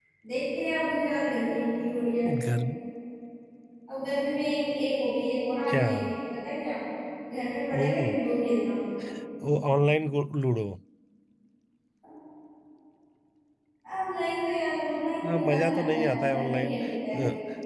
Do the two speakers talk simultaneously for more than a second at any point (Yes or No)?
Yes